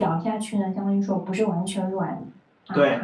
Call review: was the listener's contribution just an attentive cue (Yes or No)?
No